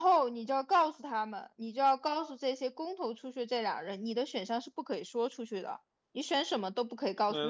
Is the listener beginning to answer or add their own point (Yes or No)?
No